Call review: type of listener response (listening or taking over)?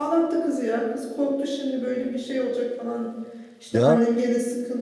listening